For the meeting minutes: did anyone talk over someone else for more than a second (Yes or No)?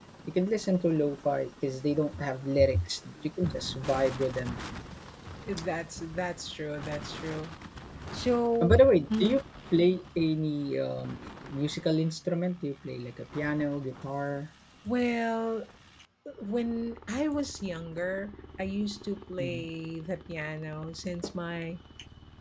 No